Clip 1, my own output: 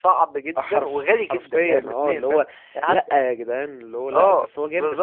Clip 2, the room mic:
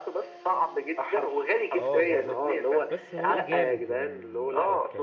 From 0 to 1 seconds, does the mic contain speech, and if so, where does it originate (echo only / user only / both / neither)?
echo only